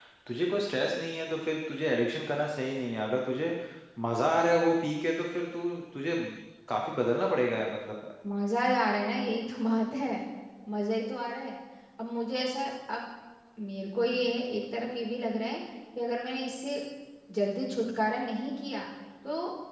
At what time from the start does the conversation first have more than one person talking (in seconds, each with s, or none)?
none